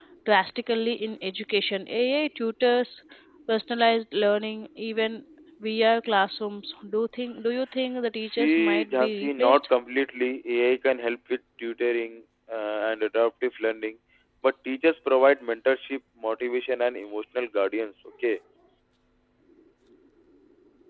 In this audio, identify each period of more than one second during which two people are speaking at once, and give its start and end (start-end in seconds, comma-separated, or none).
8.2-9.6